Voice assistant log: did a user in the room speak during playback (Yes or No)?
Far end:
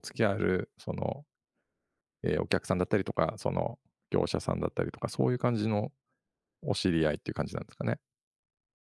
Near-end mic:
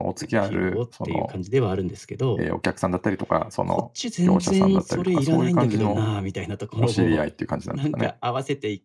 Yes